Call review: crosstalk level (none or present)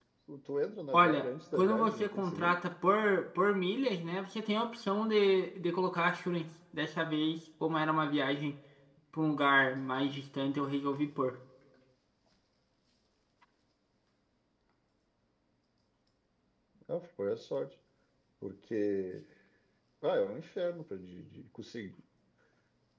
present